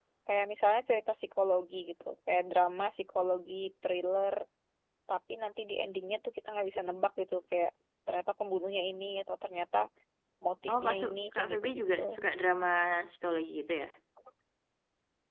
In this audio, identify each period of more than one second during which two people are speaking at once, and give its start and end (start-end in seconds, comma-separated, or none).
10.7-12.0